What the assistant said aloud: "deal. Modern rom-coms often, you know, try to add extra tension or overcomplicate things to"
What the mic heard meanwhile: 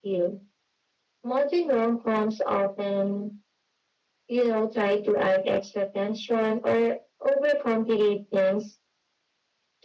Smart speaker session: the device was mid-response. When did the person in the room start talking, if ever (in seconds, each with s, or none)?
none